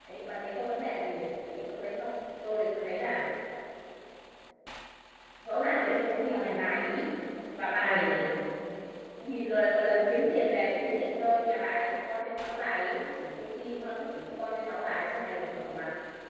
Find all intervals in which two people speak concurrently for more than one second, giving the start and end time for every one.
5.5-6.9

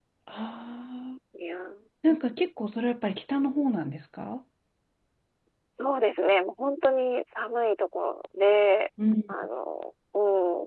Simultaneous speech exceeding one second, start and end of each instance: none

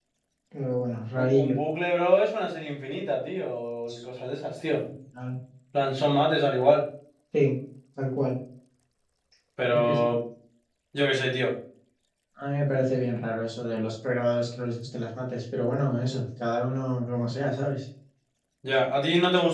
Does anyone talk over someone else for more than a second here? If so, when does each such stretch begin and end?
none

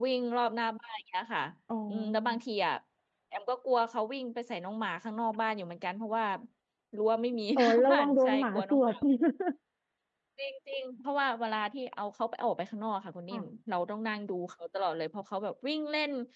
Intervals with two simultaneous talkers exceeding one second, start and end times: 7.6-8.8

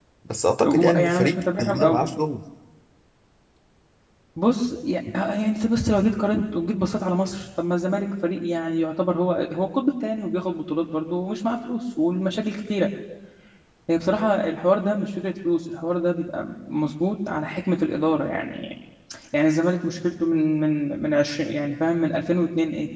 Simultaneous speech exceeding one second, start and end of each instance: 0.6-2.1

